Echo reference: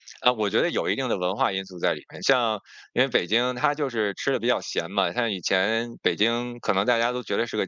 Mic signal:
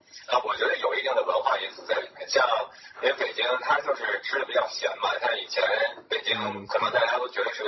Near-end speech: present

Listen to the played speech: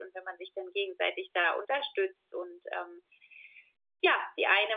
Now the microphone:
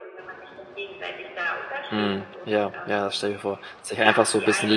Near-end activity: present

